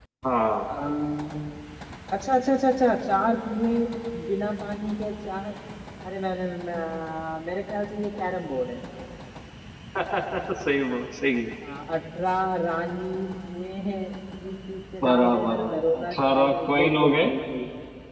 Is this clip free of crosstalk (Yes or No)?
No